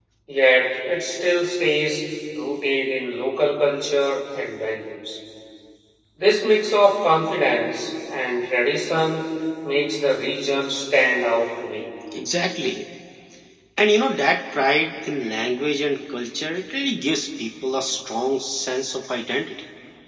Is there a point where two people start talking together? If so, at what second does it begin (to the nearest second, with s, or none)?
none